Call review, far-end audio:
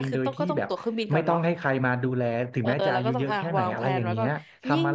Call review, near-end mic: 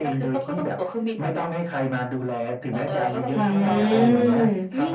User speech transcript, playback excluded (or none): อืม